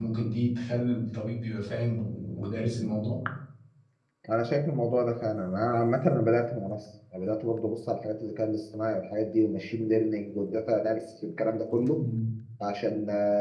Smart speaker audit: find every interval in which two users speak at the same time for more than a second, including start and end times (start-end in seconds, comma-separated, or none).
none